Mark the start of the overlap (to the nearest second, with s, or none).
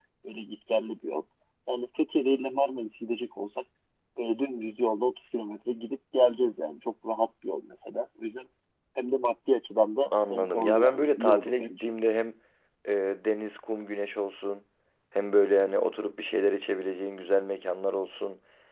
10 s